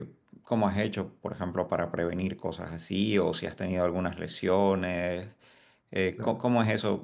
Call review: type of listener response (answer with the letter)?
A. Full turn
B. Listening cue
B